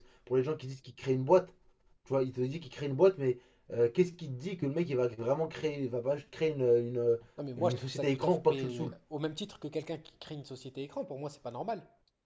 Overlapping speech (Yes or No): Yes